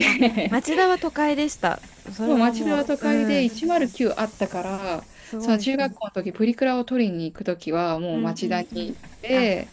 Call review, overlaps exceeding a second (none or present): present